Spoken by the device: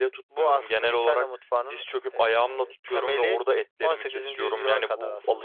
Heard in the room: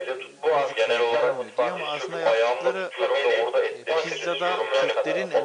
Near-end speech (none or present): present